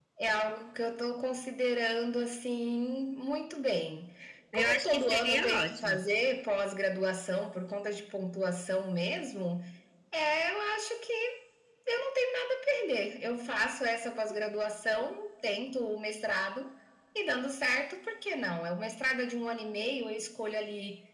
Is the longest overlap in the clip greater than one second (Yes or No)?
Yes